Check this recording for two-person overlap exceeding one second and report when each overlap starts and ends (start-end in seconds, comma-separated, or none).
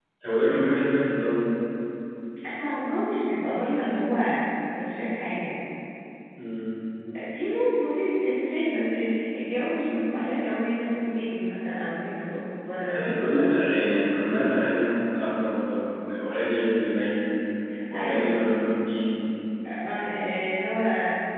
none